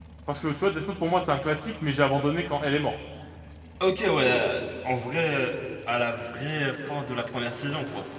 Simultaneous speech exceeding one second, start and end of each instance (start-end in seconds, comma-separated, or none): none